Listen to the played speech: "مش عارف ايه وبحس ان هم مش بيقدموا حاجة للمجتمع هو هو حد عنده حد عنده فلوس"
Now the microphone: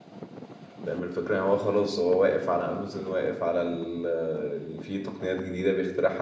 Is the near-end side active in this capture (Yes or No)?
Yes